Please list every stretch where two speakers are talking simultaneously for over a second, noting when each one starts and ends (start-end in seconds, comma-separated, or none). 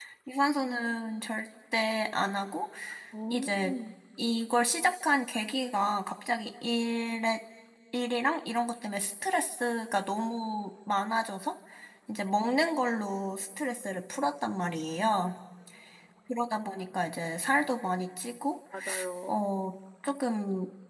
none